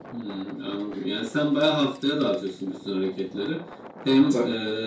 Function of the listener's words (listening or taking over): listening